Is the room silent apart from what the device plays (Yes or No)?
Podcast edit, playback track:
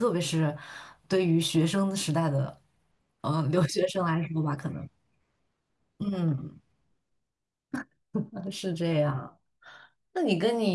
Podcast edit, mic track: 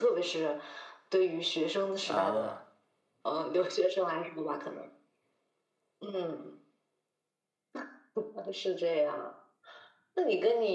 No